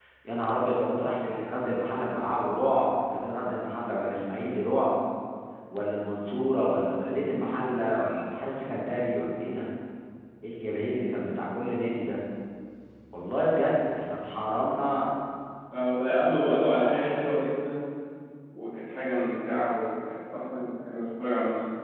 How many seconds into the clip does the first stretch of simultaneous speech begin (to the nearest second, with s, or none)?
none